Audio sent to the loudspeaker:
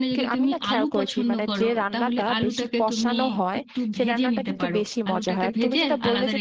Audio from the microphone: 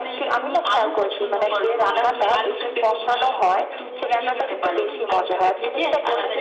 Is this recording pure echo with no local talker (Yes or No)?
No